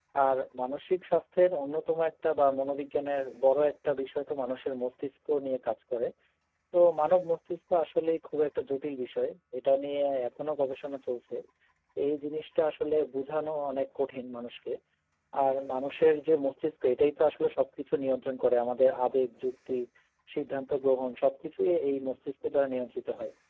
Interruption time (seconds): none

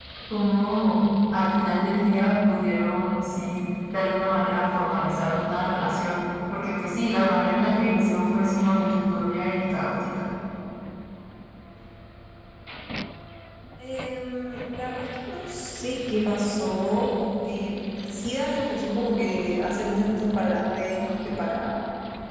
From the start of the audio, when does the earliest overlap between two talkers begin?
none

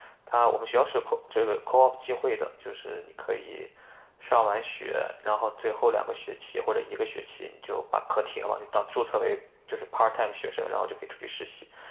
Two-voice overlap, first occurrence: none

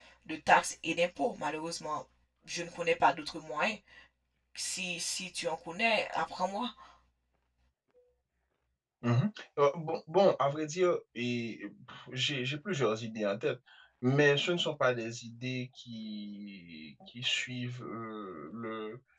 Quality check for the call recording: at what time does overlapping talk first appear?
none

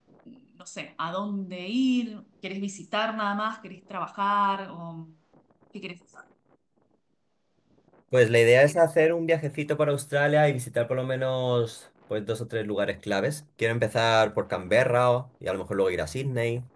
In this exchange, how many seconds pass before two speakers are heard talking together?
none

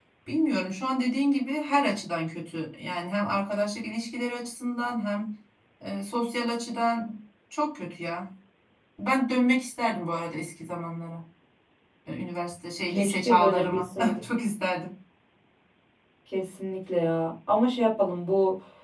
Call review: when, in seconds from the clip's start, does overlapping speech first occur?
12.9 s

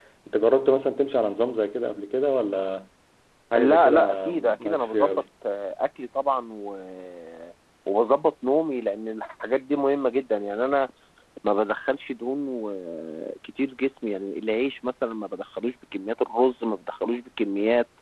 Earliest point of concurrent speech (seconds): 3.6 s

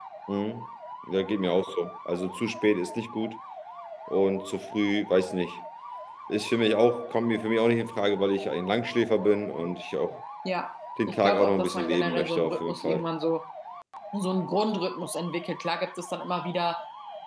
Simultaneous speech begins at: 11.1 s

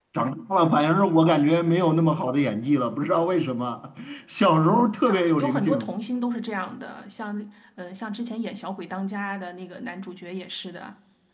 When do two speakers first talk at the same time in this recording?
4.7 s

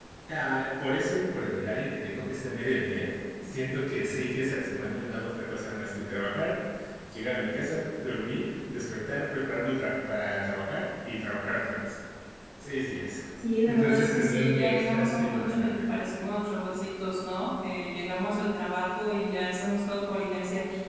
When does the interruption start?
13.6 s

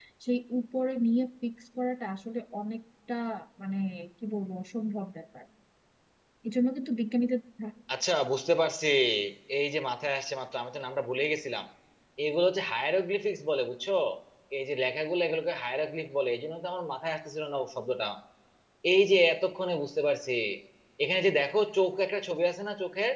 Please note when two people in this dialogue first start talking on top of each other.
none

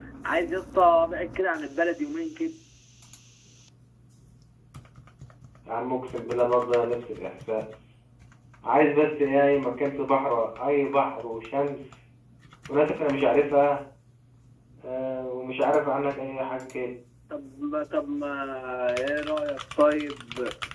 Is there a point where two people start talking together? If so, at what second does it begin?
none

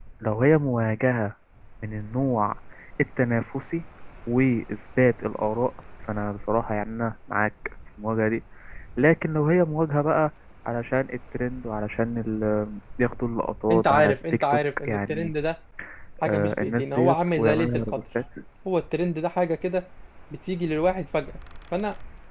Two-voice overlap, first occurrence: 13.7 s

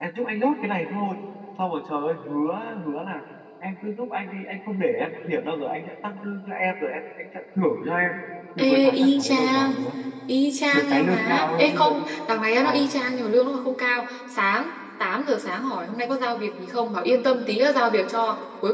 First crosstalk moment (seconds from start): 8.6 s

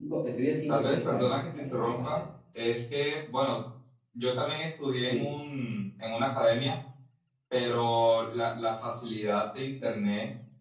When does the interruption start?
0.7 s

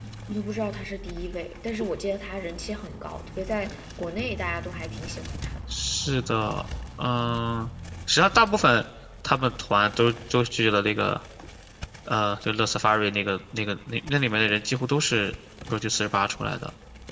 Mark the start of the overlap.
none

